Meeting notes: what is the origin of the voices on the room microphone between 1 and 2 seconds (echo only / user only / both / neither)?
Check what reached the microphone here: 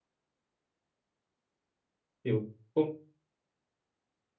neither